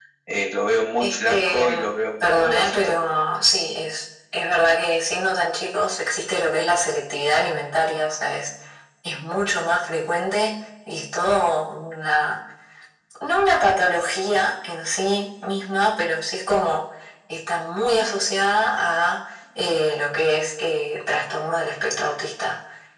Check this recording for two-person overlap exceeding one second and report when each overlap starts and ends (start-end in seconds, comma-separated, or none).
1.0-3.0